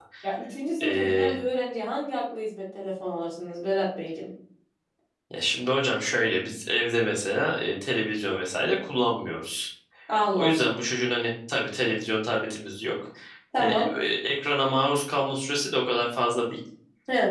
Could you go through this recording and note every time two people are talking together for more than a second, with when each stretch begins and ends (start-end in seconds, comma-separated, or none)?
none